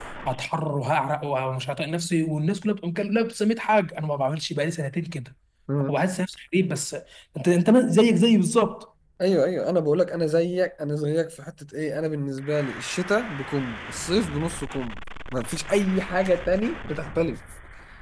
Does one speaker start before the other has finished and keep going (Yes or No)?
No